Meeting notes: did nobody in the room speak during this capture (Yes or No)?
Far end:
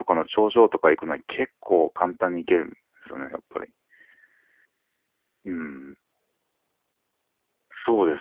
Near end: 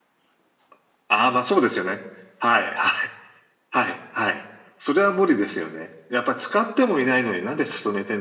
No